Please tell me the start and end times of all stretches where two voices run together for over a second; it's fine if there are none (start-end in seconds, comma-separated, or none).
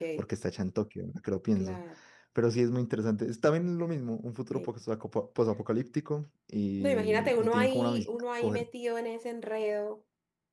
6.8-8.2